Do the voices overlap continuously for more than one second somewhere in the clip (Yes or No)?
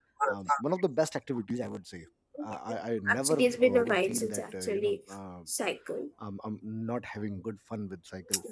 Yes